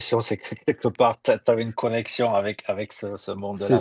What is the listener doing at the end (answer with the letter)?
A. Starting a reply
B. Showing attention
A